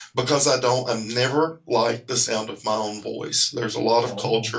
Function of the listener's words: listening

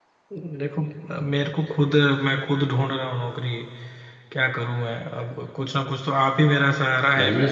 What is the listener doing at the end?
listening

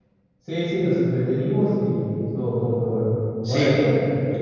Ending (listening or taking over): taking over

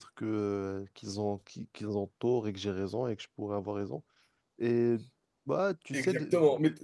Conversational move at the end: taking over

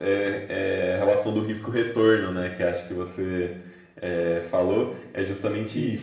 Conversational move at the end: listening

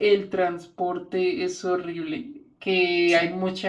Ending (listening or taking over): listening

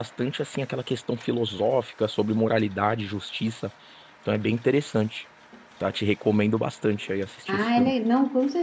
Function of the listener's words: taking over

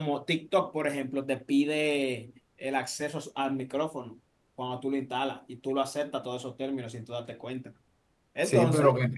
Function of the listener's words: taking over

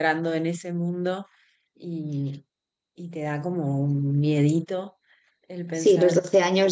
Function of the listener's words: taking over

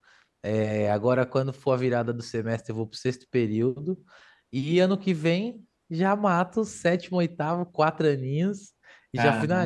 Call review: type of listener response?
listening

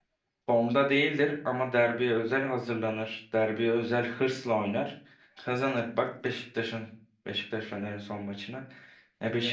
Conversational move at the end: listening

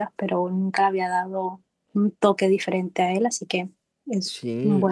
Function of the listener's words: taking over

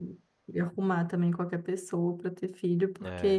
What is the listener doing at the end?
taking over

